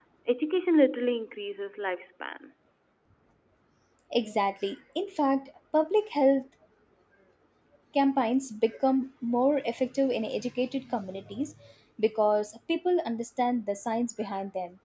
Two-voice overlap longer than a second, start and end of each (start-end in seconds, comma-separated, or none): none